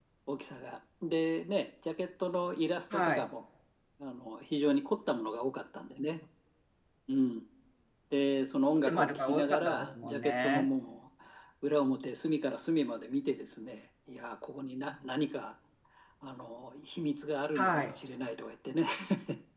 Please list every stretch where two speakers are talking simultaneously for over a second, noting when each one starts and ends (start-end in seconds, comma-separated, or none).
8.9-10.7